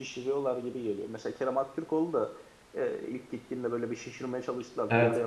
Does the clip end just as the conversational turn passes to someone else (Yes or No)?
No